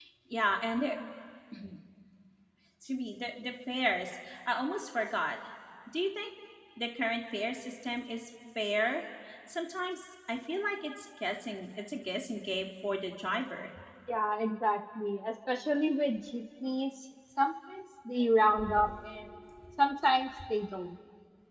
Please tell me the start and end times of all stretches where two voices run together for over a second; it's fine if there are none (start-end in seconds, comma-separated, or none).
none